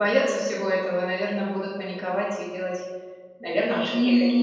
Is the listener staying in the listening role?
No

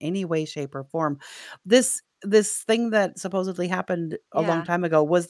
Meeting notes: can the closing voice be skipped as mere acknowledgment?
Yes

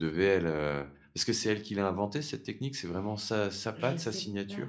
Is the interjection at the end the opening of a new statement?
Yes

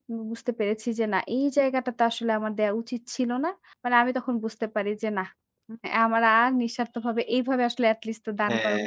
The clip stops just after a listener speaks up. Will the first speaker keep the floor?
No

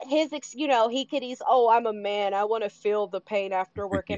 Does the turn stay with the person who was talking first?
Yes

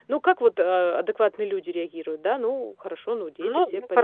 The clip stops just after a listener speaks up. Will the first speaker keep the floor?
No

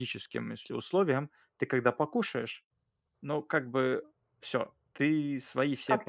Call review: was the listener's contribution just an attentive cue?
No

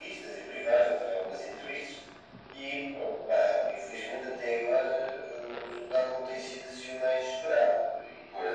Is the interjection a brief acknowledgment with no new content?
No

